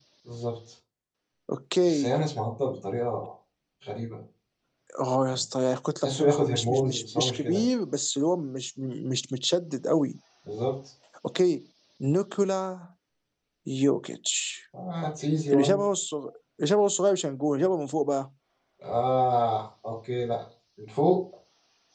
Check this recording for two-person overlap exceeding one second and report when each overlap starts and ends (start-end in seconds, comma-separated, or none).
6.0-7.7